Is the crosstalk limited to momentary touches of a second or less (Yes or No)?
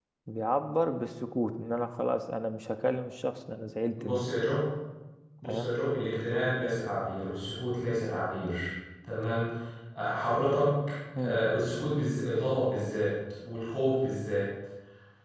Yes